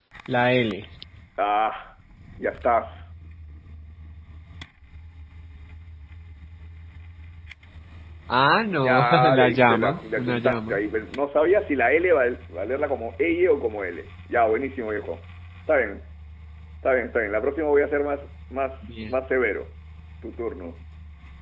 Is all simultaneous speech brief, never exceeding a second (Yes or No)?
No